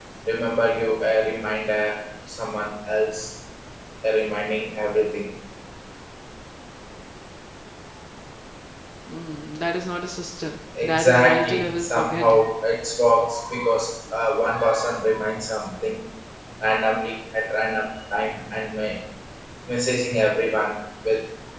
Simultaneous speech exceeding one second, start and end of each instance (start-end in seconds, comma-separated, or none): 10.8-12.4